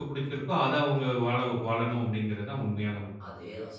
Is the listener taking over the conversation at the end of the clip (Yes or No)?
Yes